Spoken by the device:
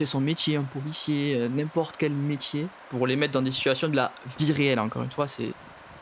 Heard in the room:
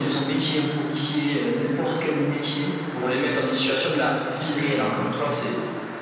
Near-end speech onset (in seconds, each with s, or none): none